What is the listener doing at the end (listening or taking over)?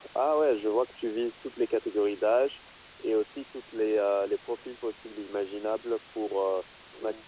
listening